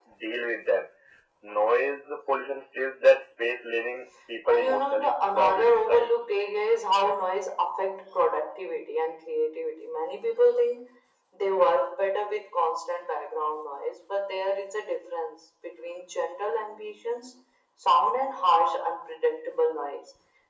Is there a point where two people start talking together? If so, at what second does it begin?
4.5 s

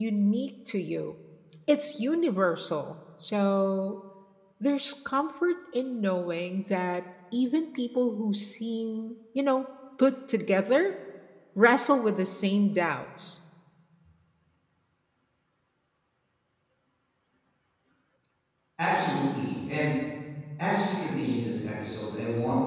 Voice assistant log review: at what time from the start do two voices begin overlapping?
none

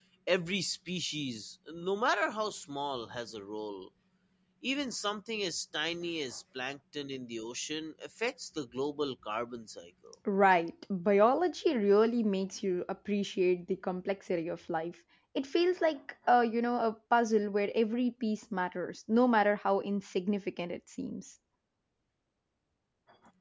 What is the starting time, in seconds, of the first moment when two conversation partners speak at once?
none

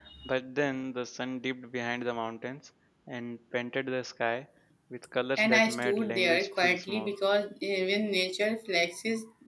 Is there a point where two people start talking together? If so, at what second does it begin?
5.4 s

